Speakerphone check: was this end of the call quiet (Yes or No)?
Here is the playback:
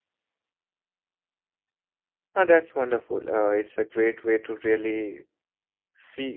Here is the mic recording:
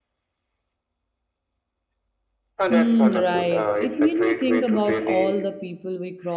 No